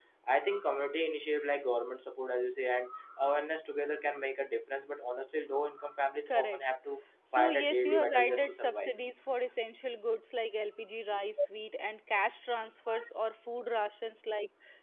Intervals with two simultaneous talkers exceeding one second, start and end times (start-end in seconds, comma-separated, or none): 7.3-9.0